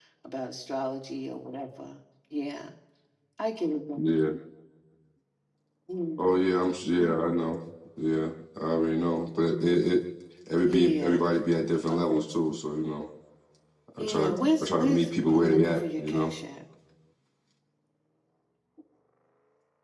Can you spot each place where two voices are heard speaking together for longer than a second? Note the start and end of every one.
14.0-16.3

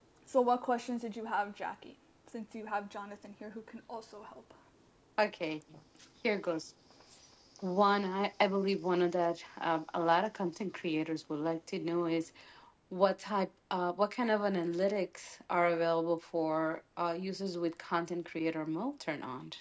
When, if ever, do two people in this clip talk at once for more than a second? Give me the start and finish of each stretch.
none

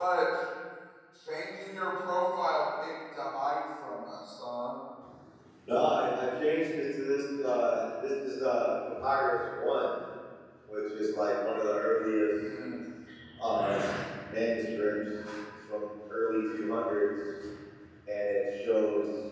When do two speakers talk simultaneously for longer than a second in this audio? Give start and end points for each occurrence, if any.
none

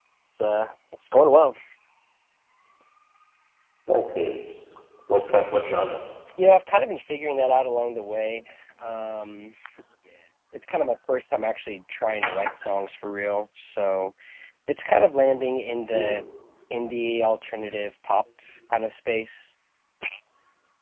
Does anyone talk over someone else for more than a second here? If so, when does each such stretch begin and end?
none

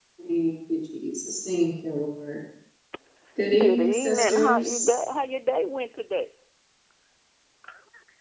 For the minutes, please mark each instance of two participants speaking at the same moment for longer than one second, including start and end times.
3.6-4.9

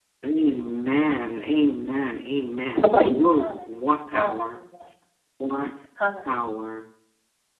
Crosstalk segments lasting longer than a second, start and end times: 3.4-4.6

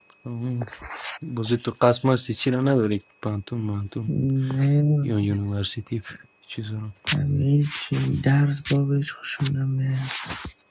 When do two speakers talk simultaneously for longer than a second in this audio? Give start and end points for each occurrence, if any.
none

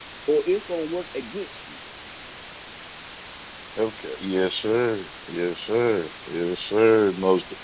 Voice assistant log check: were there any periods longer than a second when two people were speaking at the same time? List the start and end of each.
none

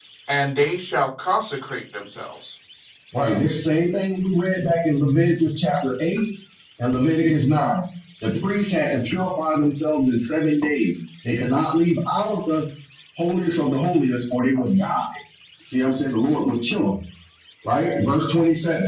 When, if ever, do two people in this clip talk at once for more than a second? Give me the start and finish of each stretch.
none

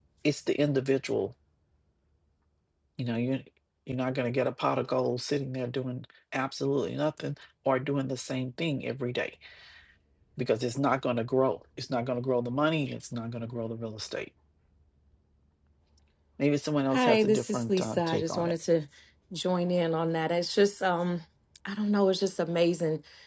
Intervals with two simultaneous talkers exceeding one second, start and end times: 16.9-18.5

